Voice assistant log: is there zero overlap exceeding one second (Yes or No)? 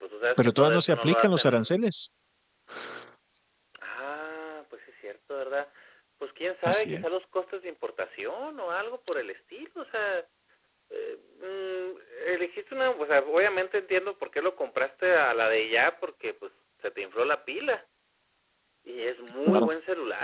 No